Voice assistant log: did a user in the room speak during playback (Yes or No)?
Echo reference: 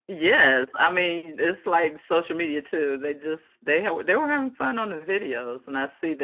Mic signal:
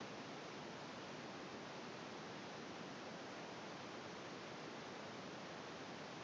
No